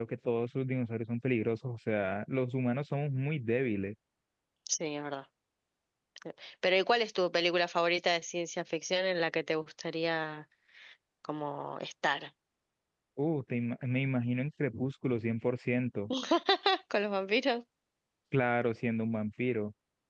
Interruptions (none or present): none